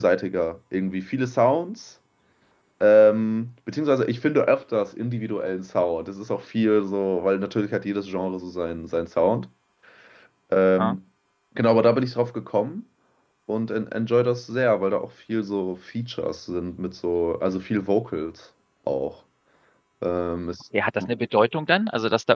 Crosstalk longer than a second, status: none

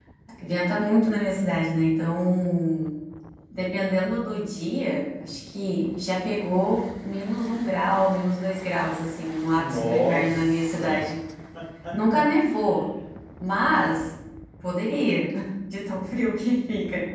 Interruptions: present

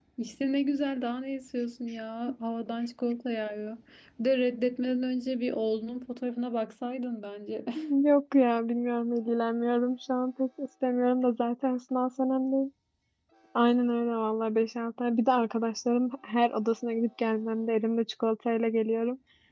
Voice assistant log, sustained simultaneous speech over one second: none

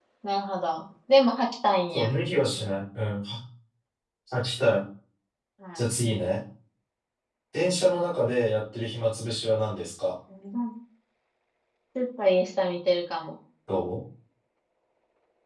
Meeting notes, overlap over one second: none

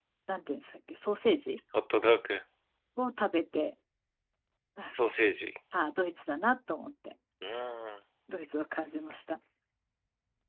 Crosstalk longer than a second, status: none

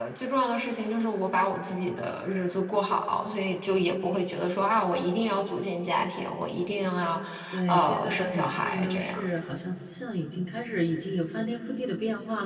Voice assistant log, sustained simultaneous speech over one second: present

